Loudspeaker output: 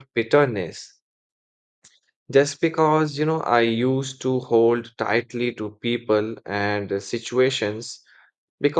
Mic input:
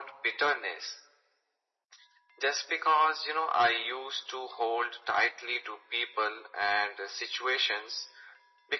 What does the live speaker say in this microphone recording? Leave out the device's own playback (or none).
none